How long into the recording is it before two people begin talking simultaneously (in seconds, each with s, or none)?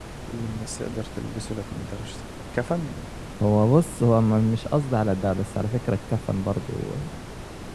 none